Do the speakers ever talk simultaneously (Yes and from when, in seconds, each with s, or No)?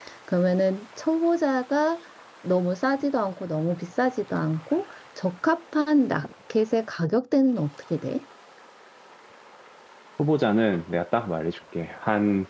No